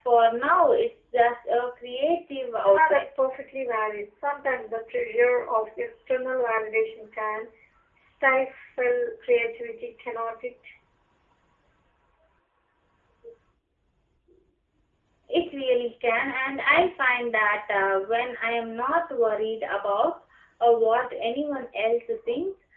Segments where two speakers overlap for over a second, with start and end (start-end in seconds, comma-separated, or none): none